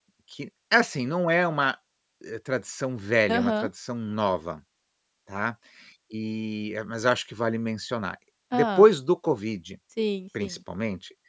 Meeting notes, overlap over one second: none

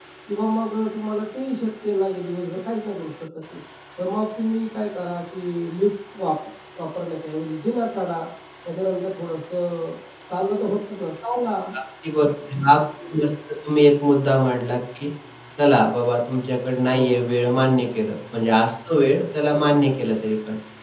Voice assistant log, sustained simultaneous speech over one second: none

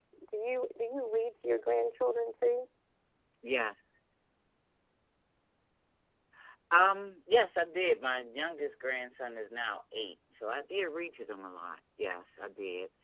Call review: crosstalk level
none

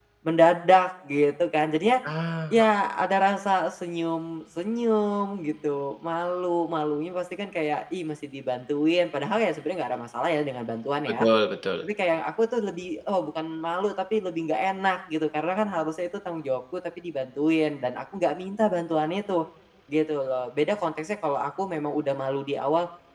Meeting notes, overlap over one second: none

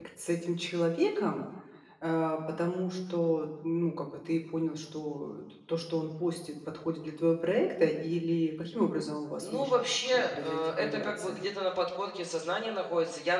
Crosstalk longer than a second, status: present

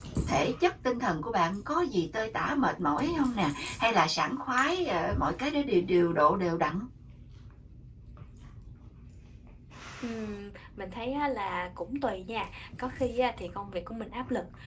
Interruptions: none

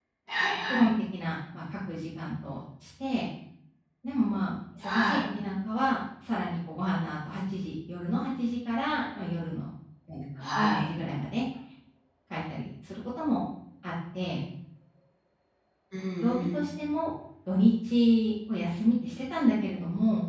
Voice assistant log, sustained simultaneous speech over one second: none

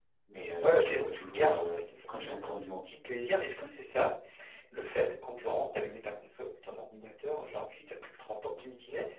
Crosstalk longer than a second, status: present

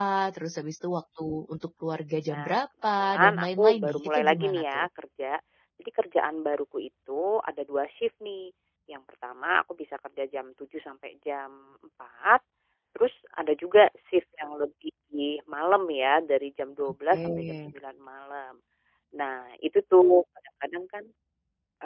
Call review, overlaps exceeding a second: present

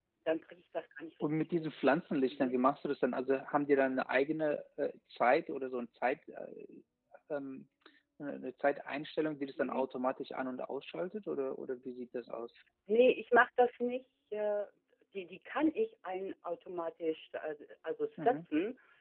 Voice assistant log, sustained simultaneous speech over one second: none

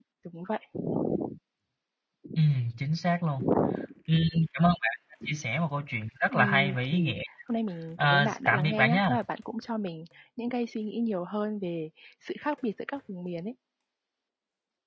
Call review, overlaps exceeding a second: present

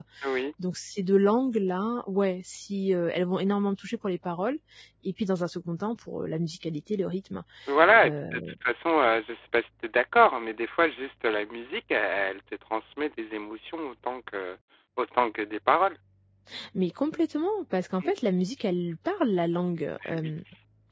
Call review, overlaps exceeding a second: none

